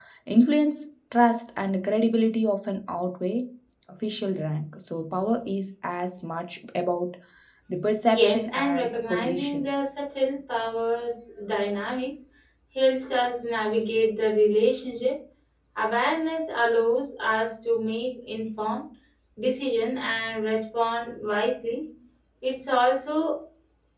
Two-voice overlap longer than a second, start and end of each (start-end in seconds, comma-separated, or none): 8.1-9.6